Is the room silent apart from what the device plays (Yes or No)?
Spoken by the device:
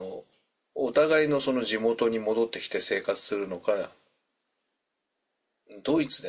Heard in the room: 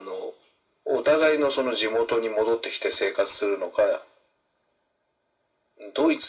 Yes